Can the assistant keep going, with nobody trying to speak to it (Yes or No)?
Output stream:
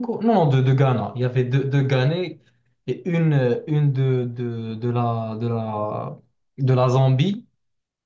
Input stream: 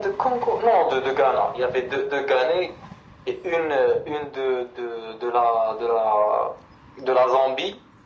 Yes